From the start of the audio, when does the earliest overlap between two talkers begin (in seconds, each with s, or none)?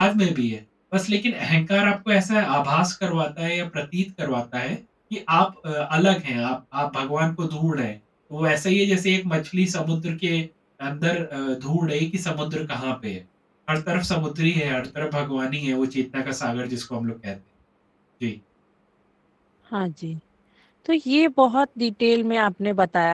none